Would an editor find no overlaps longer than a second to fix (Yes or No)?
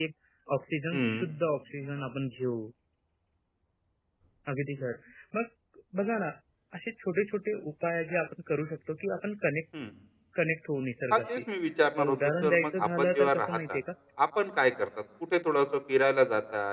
No